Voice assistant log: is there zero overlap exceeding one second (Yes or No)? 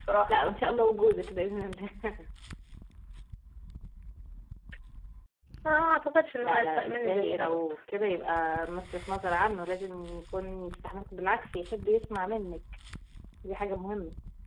No